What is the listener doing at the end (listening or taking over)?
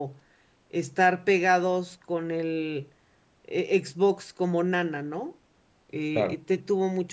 listening